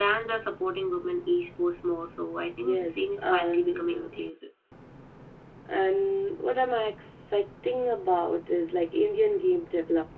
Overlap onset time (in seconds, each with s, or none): 2.6 s